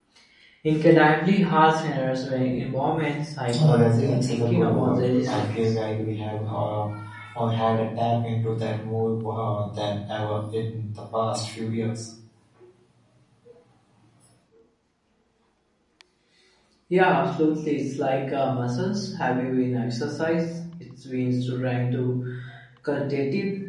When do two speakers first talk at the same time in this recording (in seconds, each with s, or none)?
3.5 s